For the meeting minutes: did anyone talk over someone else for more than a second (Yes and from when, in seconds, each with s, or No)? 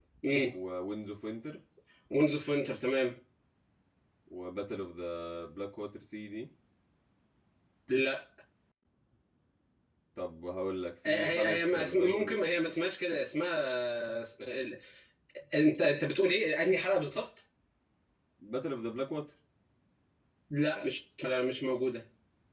Yes, from 11.0 s